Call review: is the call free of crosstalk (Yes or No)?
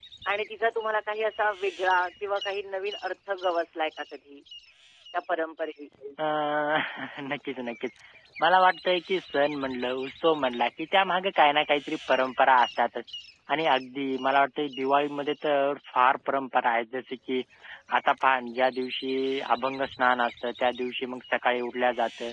Yes